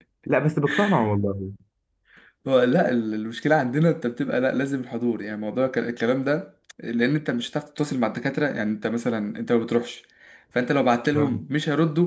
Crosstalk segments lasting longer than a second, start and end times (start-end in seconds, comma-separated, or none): none